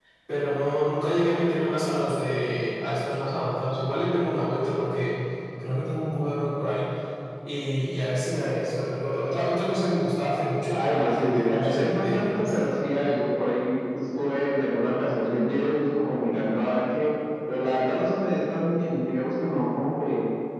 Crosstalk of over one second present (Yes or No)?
Yes